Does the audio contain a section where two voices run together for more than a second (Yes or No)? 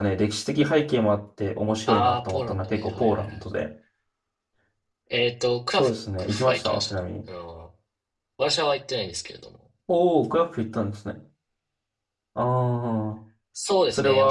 Yes